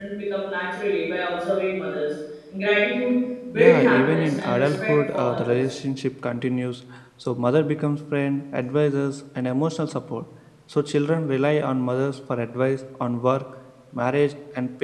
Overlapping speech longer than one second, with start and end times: 3.5-5.6

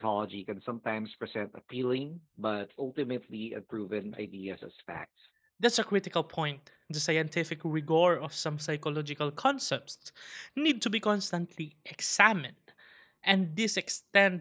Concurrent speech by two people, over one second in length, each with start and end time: none

